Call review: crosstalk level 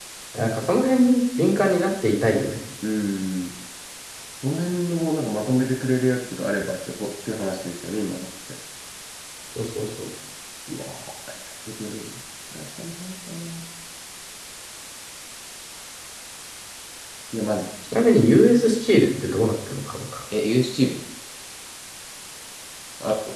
none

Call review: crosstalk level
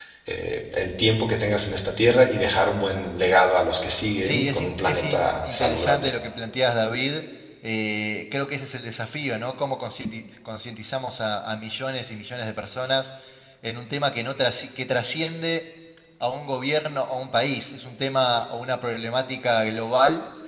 present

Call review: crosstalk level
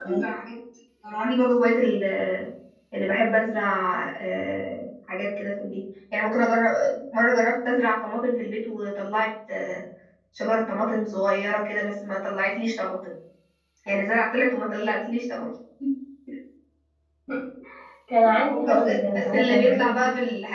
present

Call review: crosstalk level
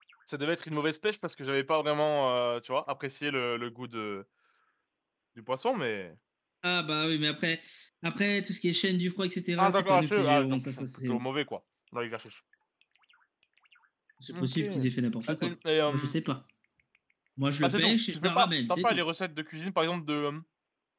present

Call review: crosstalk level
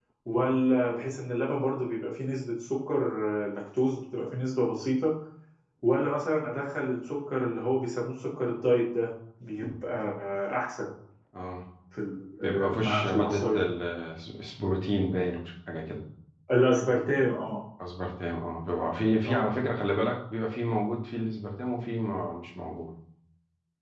present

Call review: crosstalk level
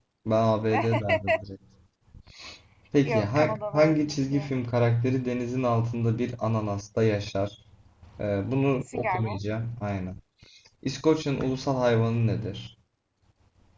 present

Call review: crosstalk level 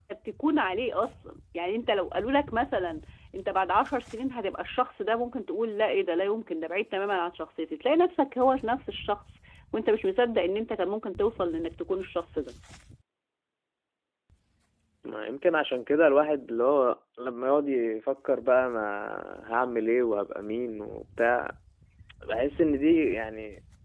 none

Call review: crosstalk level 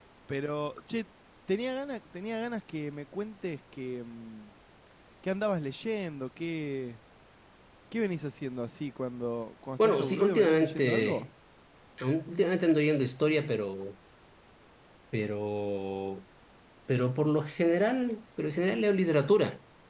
present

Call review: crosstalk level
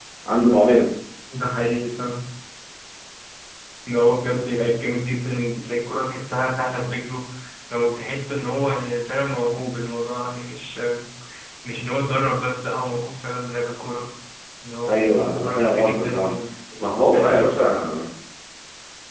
present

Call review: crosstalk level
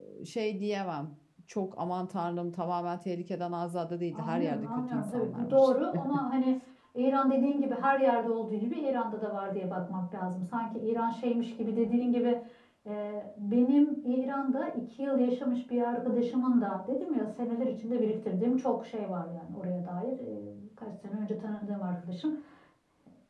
present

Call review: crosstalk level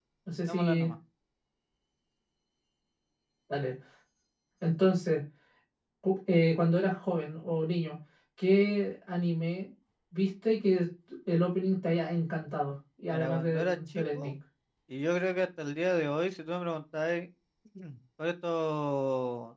present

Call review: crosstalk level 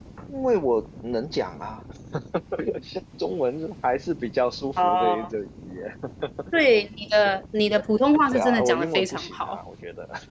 present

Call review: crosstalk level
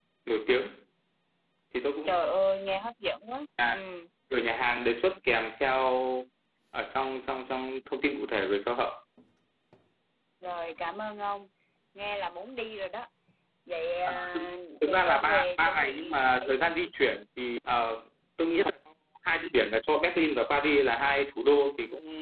present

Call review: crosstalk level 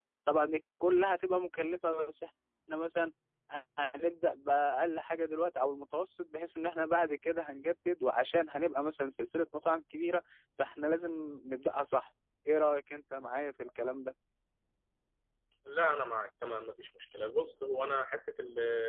none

